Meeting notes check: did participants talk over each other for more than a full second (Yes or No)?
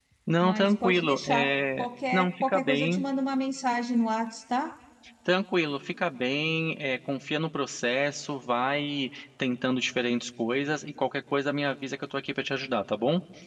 Yes